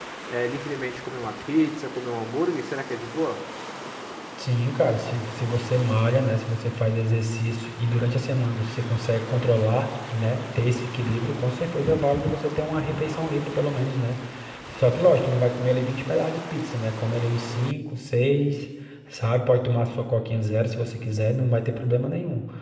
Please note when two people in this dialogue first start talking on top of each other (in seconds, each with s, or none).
none